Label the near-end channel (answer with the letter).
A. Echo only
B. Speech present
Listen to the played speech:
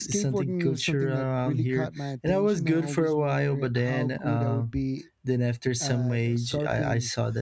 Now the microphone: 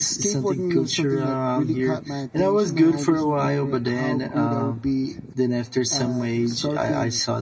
A